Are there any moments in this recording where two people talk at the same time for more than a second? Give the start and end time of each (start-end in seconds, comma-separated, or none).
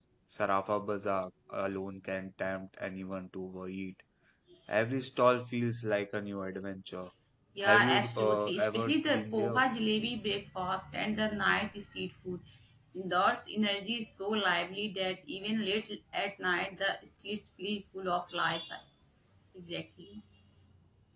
7.6-9.6